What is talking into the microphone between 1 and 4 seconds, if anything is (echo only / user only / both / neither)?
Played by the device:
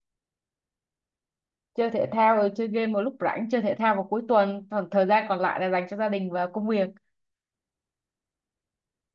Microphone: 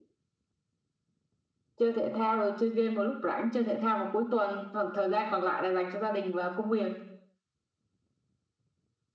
echo only